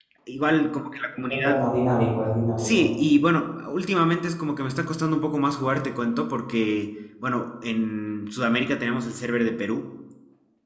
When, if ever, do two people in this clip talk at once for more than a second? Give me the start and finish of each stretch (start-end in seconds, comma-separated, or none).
none